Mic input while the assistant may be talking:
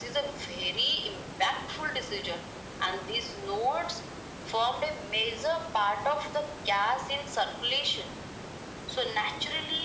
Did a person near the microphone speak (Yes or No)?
No